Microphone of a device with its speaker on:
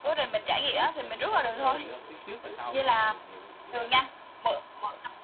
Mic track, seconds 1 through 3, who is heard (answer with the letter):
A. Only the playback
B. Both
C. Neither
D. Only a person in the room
B